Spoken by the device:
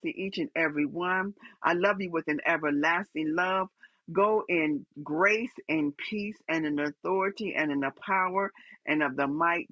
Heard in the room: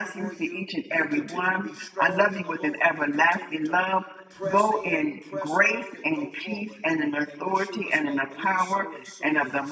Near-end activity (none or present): present